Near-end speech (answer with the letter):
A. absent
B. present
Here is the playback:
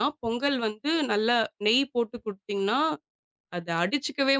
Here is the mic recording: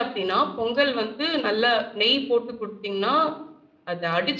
A